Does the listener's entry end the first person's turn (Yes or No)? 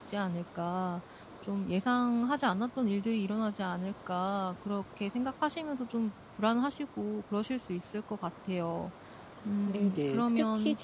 Yes